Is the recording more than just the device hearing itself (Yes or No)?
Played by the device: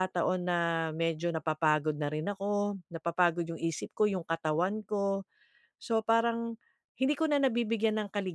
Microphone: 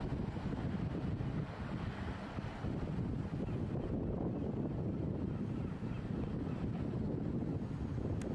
No